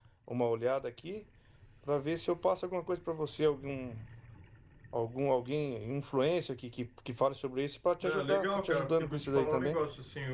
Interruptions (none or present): present